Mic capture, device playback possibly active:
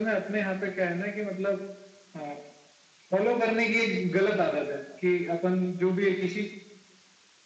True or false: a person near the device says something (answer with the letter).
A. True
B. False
B